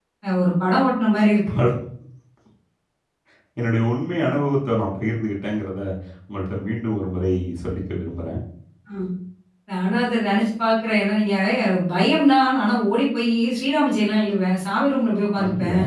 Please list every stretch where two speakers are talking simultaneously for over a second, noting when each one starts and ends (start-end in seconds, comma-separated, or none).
none